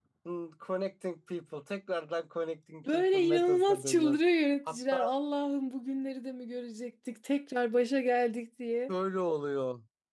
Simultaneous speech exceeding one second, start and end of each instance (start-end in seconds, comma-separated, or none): 2.9-4.2